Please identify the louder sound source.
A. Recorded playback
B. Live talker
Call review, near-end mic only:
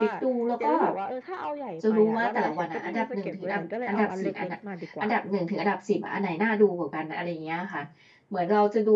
B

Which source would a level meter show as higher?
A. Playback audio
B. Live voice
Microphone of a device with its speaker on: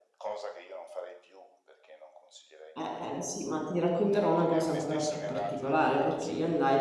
B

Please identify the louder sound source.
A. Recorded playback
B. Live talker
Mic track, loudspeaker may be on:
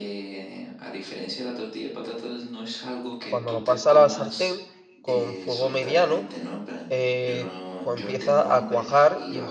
B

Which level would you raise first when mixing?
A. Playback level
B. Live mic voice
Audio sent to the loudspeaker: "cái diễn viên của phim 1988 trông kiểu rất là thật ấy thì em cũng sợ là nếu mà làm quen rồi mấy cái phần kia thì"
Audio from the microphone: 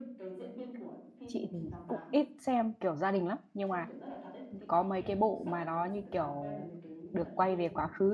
A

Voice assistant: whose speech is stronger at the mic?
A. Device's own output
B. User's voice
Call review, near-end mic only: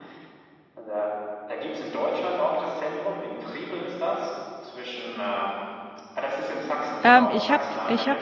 B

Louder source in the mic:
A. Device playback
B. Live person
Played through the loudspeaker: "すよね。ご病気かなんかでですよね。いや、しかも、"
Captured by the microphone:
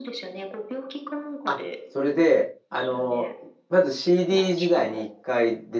B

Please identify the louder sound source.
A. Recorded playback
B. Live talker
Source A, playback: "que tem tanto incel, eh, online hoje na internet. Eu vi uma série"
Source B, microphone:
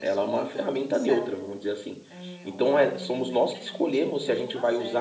B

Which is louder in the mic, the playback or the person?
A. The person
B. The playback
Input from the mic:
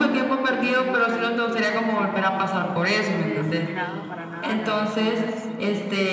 B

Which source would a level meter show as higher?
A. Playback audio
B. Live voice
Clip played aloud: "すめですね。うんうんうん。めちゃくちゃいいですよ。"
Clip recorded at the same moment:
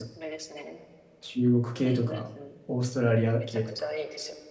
B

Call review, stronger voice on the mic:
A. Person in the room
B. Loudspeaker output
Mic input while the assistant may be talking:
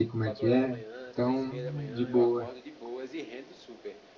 A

